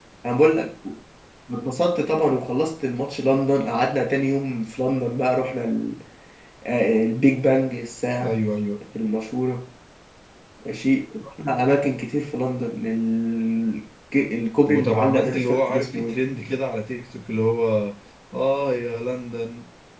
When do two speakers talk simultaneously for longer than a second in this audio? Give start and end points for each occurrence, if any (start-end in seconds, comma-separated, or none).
14.7-16.2